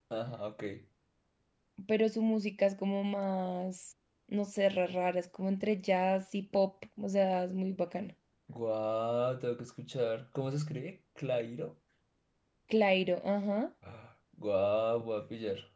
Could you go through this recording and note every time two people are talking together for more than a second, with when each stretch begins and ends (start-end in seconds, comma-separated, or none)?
none